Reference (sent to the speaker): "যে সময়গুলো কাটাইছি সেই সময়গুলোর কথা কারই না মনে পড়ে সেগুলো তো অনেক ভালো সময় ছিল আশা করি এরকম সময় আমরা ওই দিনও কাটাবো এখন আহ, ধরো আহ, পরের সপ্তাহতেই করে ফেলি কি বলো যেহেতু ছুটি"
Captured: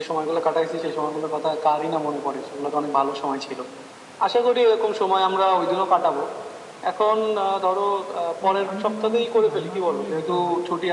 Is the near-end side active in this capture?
Yes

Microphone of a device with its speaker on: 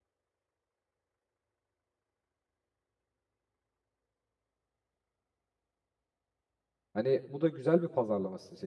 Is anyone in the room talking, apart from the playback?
Yes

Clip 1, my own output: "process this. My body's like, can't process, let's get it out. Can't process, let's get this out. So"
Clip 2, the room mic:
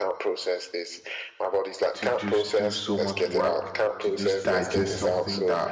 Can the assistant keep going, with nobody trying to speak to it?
No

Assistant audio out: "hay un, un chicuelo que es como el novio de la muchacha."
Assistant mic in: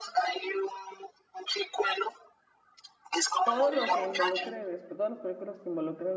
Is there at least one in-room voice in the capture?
Yes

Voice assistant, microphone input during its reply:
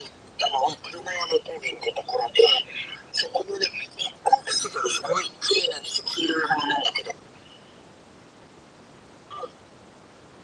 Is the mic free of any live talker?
Yes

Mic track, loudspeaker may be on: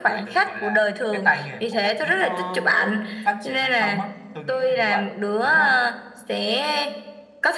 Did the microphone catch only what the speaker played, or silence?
Yes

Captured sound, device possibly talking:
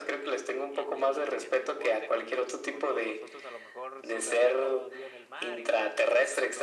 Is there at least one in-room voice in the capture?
Yes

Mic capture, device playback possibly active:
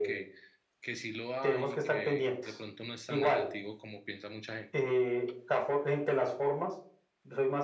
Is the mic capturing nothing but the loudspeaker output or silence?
No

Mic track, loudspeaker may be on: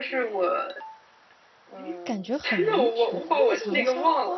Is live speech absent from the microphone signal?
No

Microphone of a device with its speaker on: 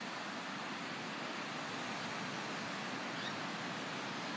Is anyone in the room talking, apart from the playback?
No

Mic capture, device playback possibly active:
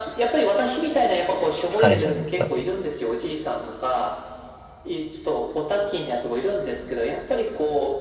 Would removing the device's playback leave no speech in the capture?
No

